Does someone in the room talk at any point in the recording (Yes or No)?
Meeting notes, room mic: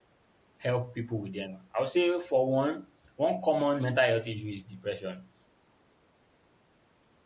Yes